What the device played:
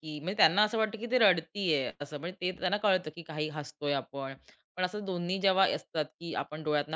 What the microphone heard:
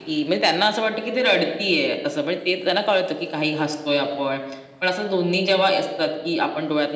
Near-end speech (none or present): none